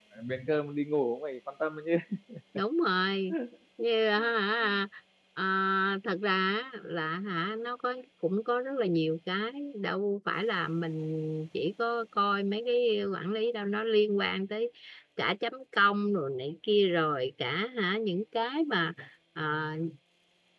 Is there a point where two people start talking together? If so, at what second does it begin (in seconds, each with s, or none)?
none